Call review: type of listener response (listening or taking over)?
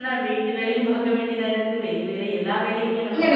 taking over